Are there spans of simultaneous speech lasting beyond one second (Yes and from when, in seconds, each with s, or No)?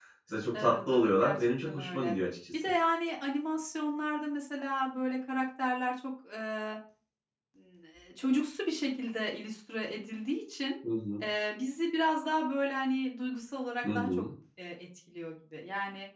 Yes, from 0.5 s